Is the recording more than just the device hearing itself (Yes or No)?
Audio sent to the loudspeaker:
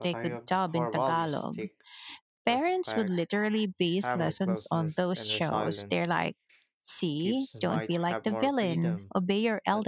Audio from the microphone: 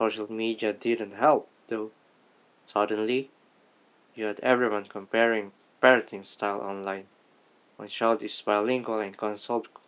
Yes